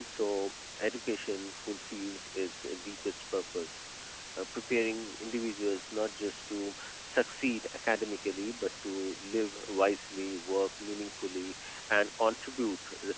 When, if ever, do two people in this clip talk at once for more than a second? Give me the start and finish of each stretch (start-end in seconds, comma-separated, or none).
none